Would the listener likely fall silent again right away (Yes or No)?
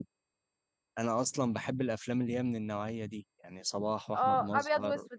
No